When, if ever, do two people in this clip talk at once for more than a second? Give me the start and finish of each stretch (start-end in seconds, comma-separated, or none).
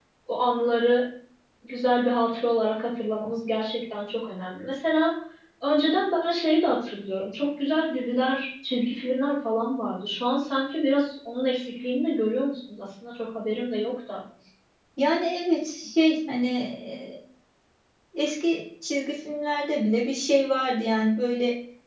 none